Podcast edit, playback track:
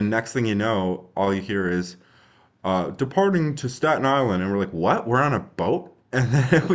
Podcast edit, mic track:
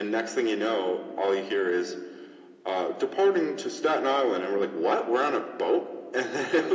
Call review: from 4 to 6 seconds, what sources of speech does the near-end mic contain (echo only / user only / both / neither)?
echo only